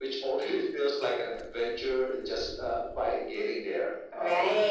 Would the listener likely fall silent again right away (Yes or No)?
No